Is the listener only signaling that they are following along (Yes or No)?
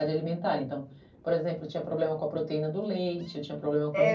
No